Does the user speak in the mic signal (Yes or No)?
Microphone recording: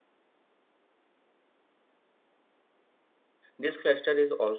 Yes